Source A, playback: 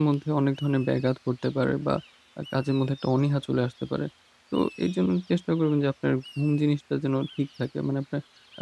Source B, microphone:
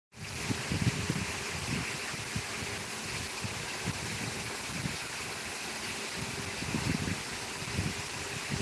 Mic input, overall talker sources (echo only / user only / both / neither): neither